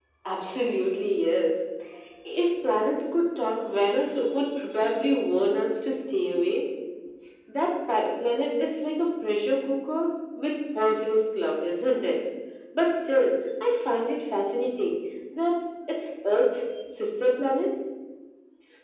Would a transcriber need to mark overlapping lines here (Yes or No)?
No